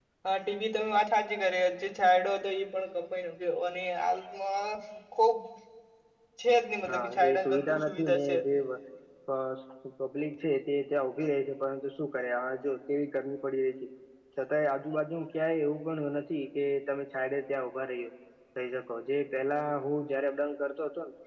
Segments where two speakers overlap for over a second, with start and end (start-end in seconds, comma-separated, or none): 6.9-8.4